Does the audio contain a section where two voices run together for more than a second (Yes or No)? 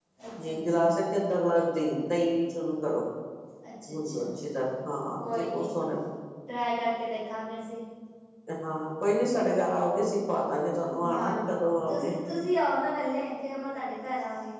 No